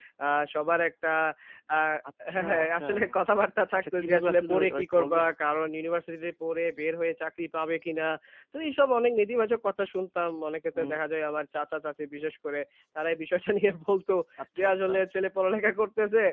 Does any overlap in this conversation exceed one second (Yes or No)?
Yes